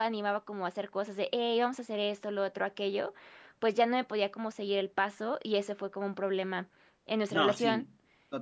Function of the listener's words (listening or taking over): taking over